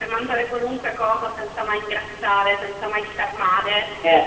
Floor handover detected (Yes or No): No